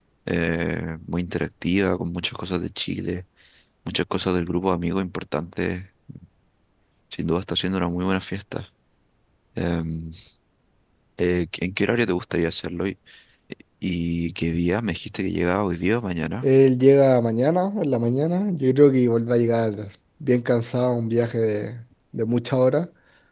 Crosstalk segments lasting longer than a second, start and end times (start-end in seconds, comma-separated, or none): none